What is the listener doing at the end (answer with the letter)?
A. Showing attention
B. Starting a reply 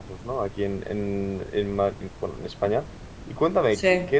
A